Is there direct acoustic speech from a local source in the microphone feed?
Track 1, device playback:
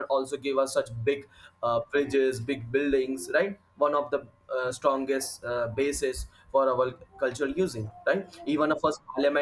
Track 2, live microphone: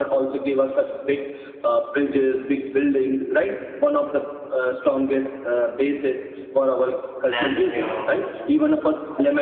Yes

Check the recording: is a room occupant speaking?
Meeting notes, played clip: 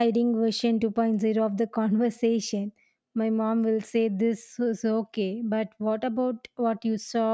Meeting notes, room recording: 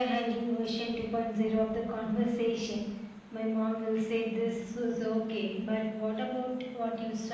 No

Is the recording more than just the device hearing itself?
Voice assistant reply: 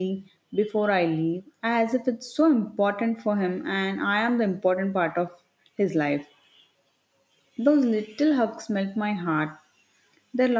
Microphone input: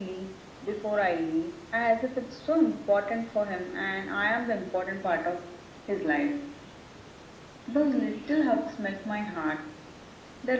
No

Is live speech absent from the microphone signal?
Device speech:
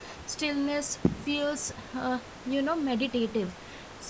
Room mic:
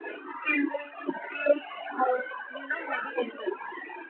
Yes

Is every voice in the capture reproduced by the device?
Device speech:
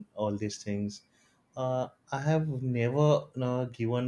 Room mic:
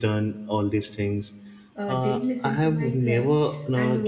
No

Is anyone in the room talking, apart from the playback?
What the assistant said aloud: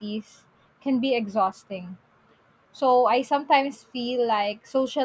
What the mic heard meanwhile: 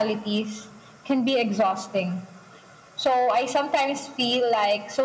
No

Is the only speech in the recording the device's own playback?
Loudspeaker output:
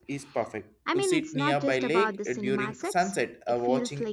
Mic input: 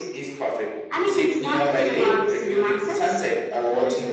Yes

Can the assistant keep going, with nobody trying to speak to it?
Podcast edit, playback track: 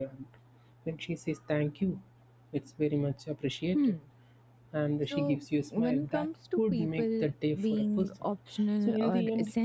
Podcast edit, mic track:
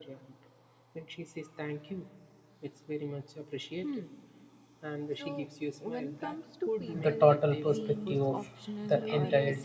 No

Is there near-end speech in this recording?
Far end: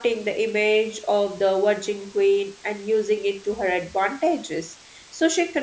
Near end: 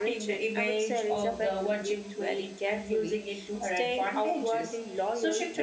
Yes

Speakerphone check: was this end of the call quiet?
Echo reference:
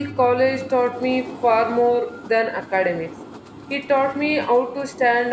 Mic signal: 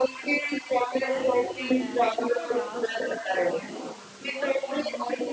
No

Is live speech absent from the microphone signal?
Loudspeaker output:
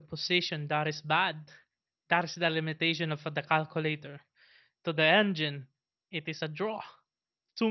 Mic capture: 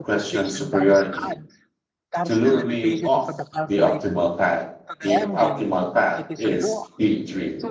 No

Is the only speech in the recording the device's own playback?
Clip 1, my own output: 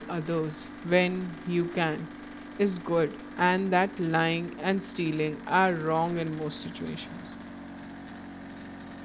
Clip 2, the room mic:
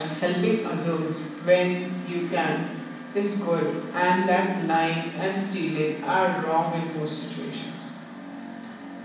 Yes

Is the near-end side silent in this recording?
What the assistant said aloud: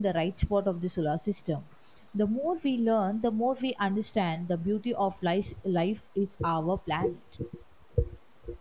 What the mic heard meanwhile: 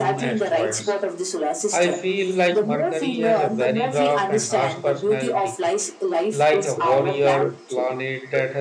No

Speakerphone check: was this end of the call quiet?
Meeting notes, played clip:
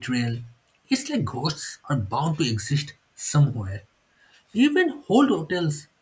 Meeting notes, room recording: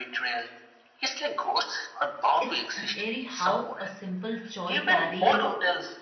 No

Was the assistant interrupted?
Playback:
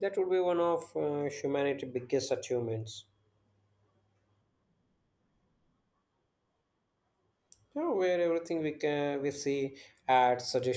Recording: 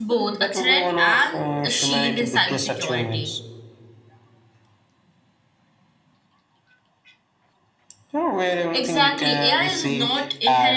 Yes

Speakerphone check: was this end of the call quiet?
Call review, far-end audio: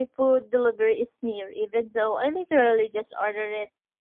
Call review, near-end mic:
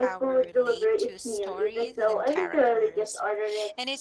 No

